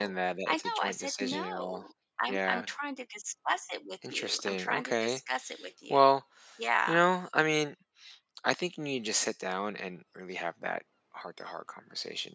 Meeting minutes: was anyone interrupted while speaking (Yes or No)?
Yes